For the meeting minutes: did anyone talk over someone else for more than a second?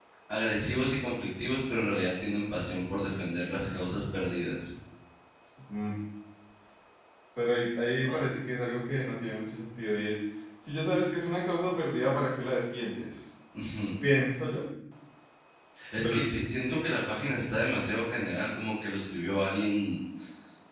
No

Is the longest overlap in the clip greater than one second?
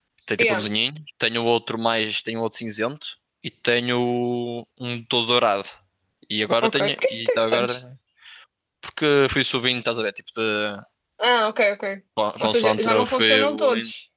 Yes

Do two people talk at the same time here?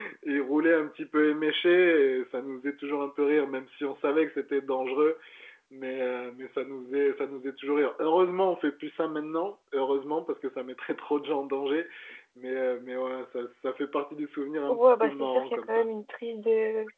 Yes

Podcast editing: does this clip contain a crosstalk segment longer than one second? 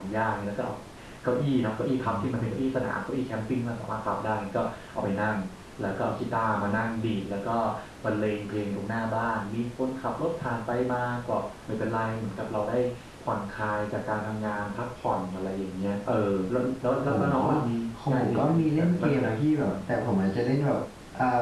Yes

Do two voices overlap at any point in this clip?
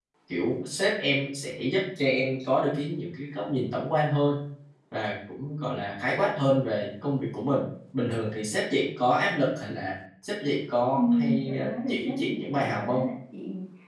Yes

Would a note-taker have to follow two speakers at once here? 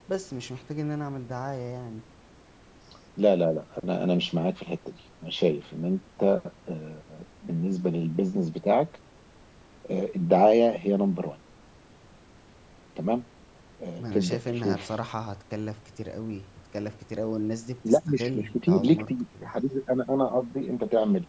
Yes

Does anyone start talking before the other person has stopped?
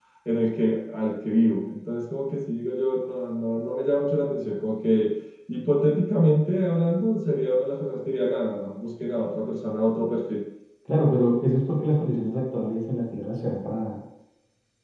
No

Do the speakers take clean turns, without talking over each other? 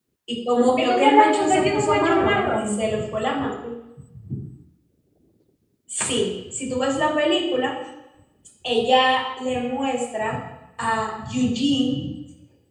No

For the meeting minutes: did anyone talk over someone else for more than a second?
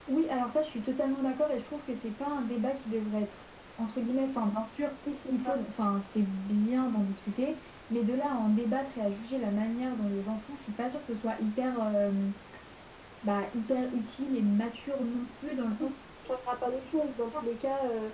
No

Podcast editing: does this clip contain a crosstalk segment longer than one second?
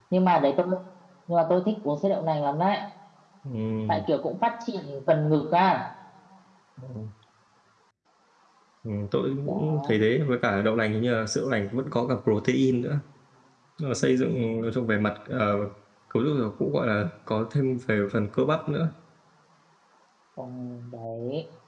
No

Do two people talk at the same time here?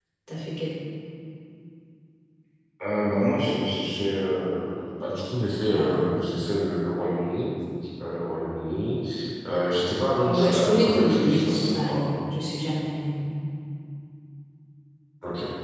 Yes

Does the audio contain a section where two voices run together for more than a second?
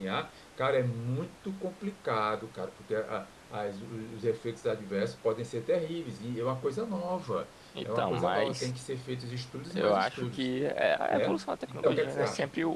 Yes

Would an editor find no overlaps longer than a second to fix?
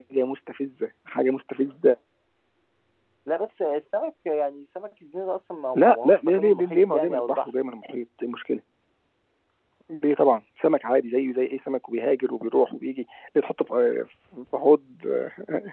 No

